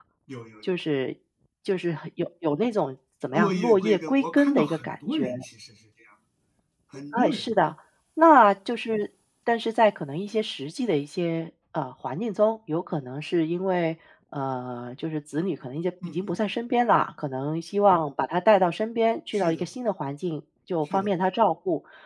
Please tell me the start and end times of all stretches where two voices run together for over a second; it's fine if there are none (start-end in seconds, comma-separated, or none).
3.3-5.2